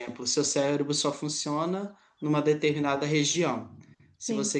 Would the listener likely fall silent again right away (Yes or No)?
Yes